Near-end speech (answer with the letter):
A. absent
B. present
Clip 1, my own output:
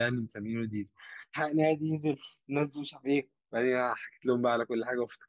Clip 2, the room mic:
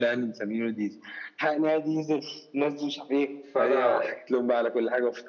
B